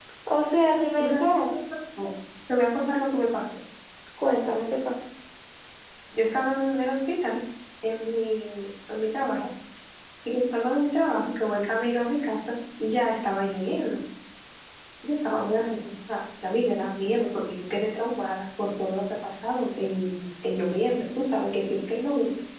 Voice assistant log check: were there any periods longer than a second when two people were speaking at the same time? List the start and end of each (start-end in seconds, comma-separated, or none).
none